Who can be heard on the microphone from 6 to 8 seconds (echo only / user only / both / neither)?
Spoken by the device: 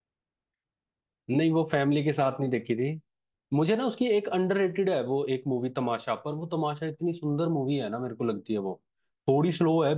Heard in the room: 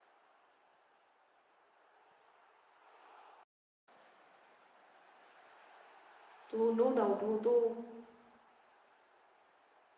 user only